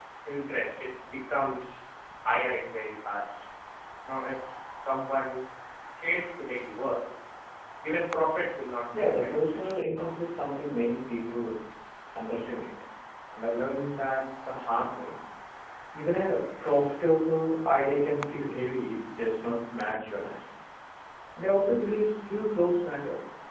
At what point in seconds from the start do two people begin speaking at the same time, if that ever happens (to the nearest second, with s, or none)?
9 s